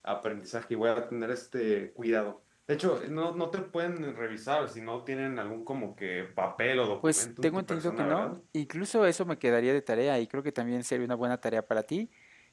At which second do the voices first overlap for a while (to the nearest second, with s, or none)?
7 s